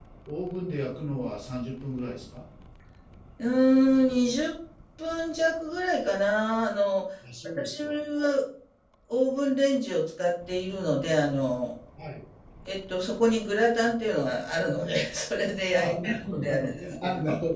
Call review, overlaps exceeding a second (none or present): present